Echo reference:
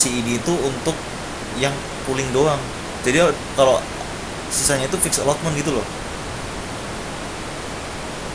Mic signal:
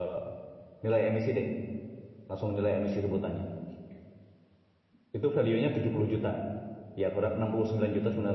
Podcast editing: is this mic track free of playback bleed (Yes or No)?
Yes